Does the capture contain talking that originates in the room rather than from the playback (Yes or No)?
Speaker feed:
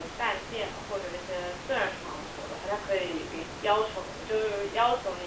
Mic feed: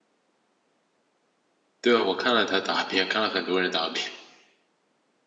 Yes